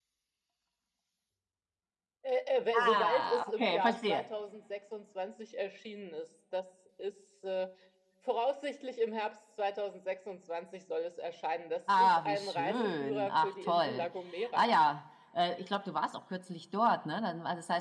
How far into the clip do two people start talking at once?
3 s

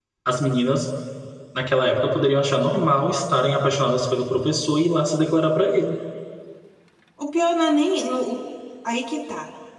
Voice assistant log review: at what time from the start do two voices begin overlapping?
none

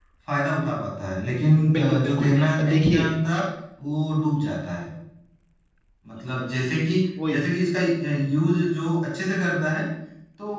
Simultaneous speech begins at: 2 s

